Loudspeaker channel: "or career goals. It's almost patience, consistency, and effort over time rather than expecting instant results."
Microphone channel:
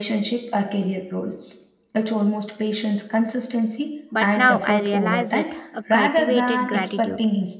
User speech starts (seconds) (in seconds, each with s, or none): 4.1 s